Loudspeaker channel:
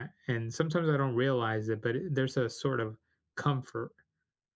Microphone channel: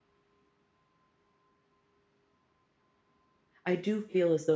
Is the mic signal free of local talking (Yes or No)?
No